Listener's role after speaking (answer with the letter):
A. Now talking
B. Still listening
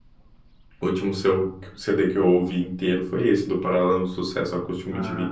A